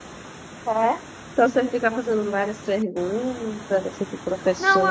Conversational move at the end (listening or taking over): taking over